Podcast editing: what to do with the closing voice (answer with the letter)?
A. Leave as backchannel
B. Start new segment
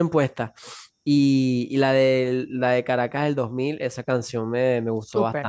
B